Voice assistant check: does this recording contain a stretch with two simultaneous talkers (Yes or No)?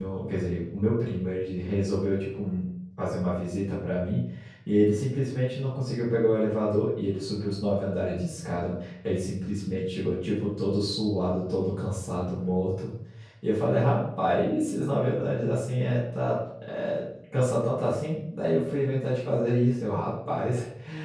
No